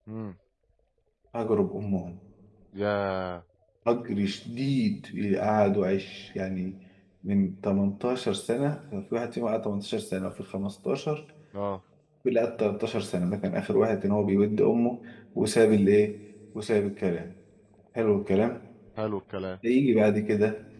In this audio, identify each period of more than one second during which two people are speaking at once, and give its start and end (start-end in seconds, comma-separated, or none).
none